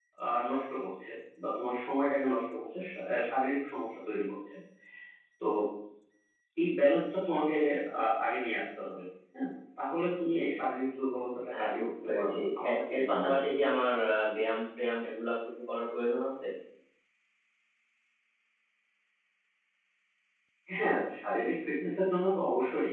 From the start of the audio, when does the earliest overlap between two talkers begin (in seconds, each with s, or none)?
11.5 s